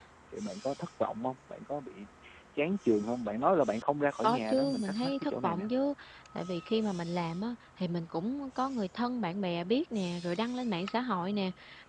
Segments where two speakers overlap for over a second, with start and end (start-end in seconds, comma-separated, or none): 4.2-5.7